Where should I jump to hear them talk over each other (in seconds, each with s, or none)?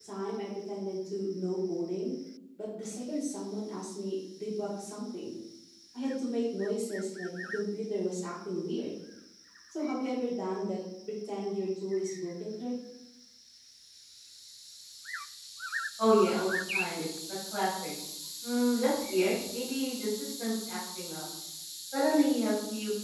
none